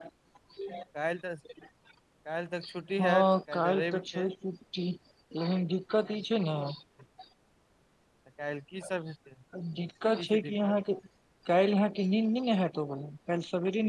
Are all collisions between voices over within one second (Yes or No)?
No